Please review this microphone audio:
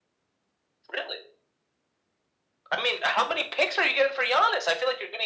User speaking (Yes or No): No